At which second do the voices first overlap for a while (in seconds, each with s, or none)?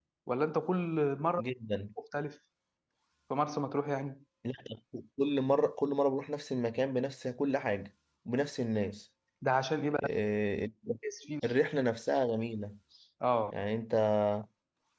none